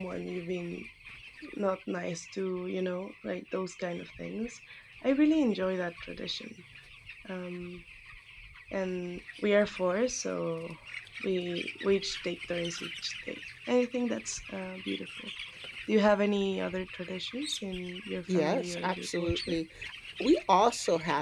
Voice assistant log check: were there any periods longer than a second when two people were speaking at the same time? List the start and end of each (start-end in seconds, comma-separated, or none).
18.3-19.5